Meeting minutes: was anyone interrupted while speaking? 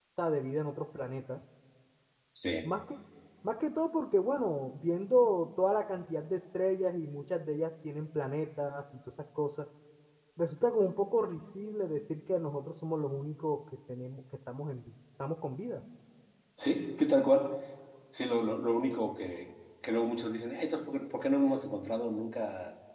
No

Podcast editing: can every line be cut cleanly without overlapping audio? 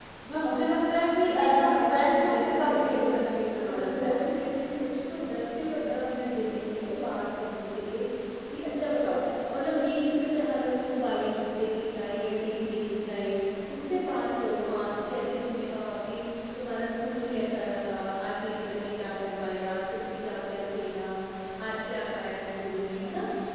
No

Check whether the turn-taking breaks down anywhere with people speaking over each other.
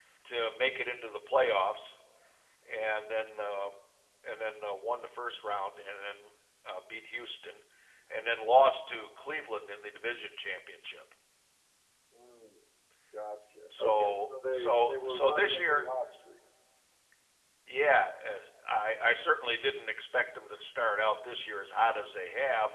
Yes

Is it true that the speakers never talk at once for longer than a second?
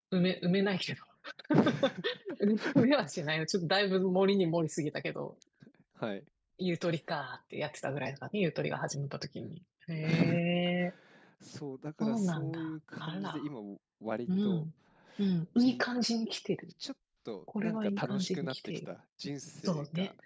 No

